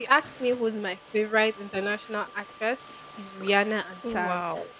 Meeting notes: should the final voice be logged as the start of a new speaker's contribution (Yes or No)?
No